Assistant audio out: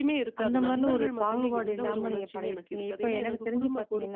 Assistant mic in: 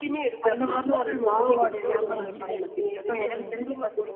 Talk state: both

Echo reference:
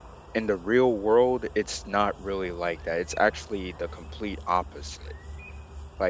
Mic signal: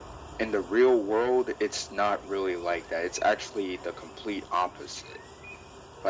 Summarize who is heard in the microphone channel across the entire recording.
echo only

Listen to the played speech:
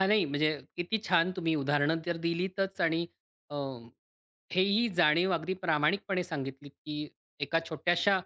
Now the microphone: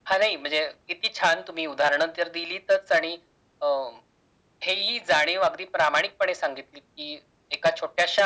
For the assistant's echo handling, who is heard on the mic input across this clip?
echo only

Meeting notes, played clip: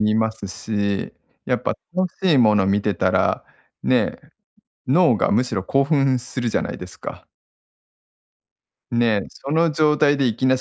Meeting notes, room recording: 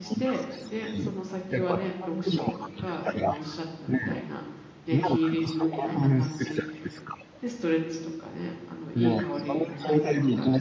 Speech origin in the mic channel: both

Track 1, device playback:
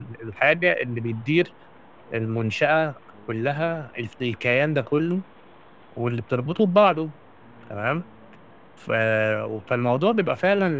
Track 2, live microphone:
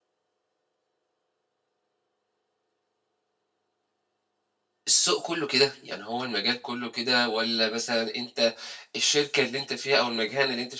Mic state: user only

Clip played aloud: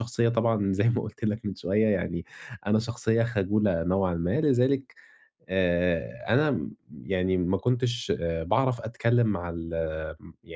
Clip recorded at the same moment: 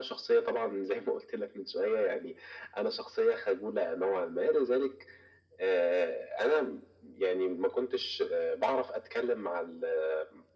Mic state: echo only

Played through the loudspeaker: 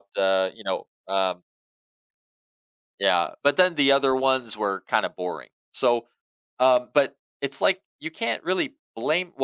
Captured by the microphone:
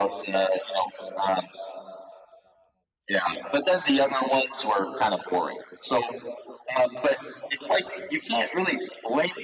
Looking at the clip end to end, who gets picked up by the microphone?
echo only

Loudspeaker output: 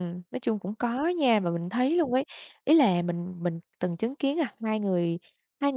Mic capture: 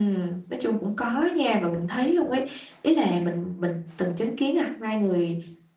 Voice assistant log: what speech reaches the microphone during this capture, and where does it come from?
echo only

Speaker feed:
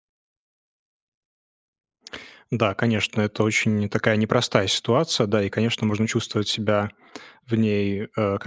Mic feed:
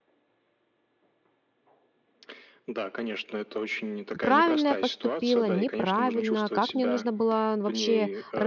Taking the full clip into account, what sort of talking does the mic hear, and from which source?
both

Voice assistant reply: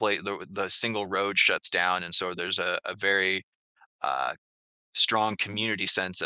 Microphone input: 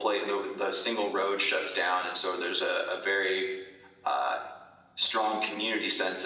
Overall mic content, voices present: echo only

